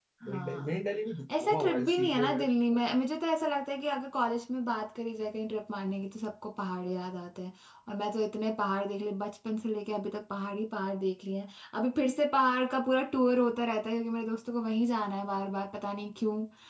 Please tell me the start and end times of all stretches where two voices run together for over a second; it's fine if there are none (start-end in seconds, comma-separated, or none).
1.4-2.8